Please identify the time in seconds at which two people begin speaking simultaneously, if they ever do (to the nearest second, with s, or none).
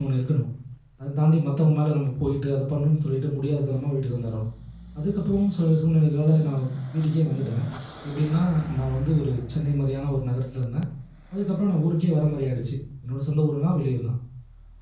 none